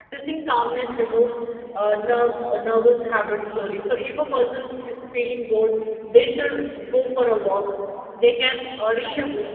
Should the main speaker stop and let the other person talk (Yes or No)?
No